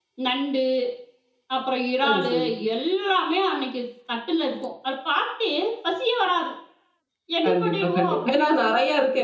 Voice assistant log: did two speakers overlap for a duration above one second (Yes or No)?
Yes